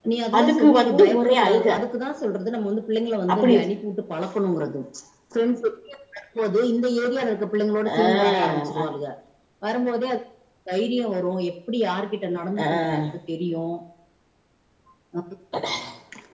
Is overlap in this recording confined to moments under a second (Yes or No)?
No